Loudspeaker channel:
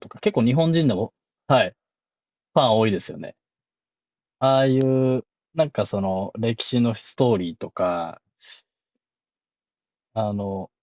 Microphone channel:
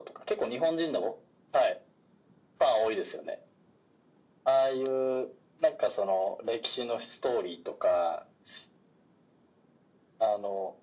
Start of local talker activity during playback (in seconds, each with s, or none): none